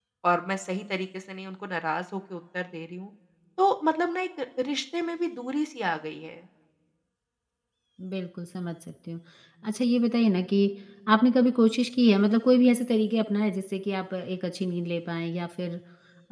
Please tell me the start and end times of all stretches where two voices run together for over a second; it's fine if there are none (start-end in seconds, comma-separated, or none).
none